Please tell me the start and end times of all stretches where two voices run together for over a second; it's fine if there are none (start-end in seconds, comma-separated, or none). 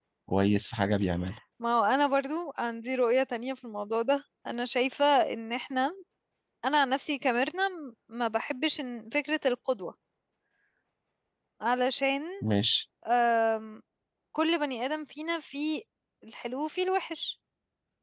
none